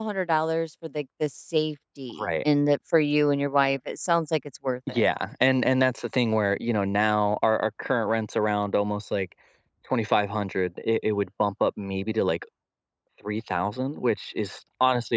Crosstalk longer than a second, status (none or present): none